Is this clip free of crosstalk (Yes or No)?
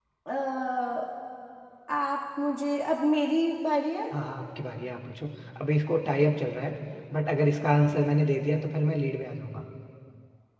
Yes